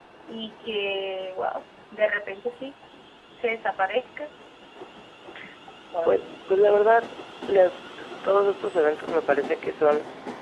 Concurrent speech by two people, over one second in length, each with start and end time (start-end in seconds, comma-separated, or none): none